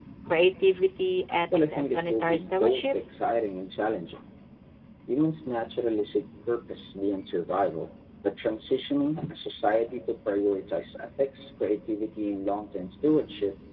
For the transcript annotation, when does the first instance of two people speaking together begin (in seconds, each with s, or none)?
1.5 s